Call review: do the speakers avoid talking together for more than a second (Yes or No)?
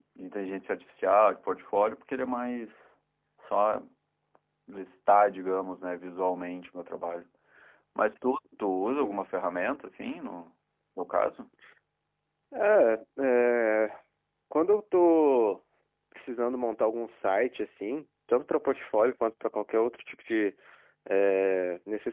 Yes